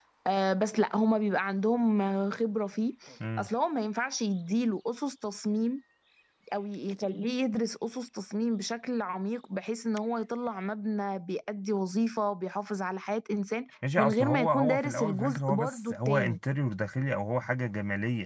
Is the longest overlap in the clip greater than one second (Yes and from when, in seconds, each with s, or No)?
Yes, from 13.8 s